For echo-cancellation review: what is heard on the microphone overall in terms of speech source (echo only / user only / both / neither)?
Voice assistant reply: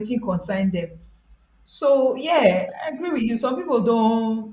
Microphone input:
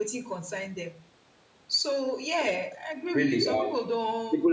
both